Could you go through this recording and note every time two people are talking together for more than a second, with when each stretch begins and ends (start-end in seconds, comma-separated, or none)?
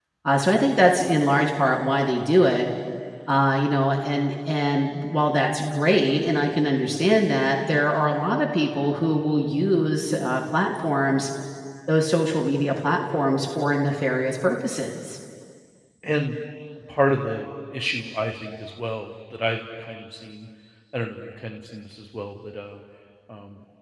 none